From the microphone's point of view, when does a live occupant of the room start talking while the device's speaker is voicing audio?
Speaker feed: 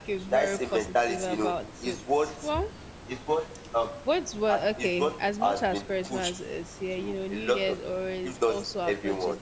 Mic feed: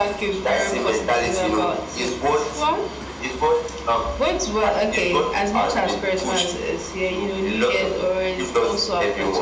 none

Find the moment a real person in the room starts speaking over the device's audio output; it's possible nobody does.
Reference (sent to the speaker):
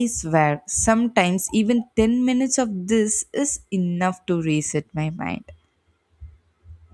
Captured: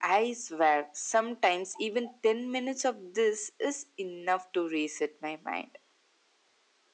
none

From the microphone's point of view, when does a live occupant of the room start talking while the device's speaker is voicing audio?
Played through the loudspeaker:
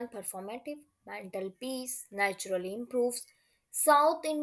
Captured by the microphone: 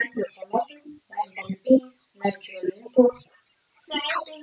none

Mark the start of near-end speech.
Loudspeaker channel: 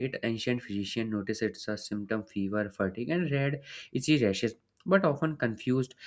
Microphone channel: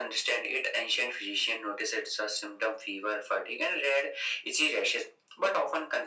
none

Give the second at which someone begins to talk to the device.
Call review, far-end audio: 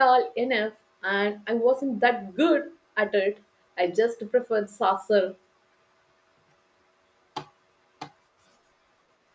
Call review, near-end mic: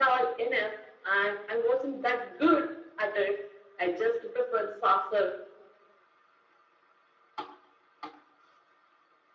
none

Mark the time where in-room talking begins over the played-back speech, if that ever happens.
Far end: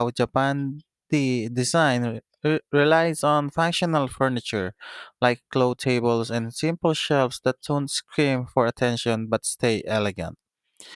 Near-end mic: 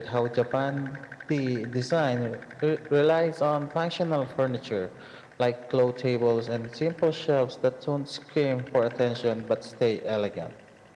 none

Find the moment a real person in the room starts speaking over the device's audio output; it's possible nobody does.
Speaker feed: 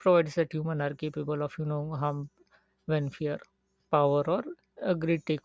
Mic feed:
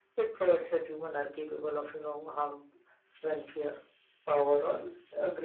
none

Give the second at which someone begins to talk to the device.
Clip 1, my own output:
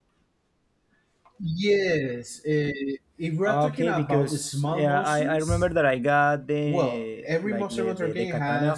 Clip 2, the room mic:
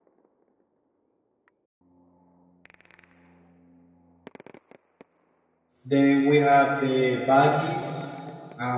6 s

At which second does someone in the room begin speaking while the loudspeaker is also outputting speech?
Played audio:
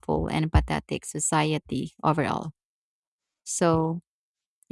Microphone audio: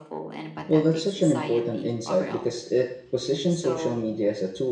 1 s

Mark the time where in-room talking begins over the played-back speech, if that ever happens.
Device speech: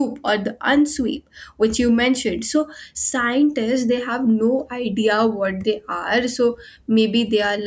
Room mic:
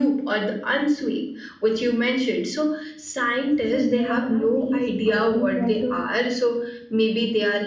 4 s

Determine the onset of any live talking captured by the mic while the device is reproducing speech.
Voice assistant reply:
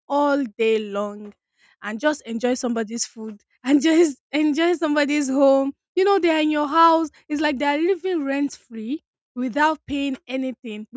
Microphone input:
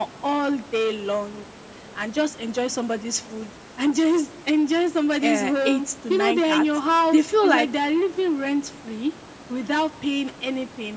5 s

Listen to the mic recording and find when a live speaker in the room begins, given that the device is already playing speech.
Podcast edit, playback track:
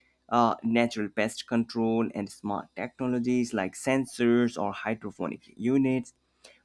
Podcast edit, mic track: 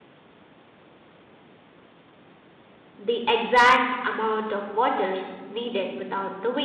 3 s

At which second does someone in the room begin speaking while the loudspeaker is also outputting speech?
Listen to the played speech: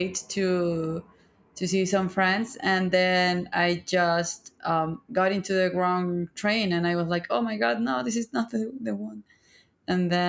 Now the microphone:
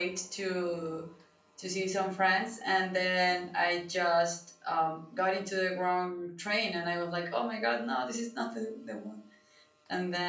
none

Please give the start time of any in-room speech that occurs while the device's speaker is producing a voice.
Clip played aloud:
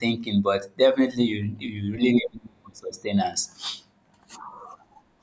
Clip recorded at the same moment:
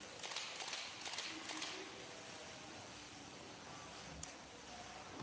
none

